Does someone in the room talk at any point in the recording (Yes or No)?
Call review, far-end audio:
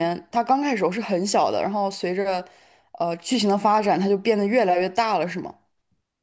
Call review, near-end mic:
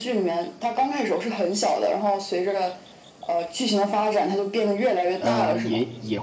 Yes